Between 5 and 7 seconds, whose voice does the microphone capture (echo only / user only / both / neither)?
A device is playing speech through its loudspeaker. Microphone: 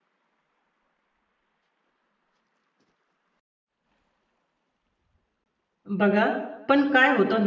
user only